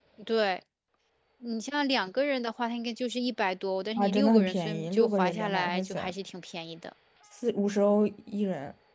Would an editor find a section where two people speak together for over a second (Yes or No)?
Yes